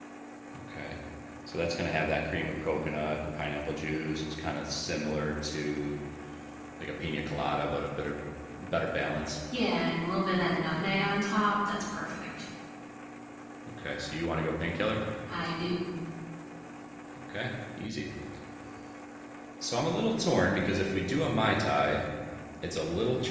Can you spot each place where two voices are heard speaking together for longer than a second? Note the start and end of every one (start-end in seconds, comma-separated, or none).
none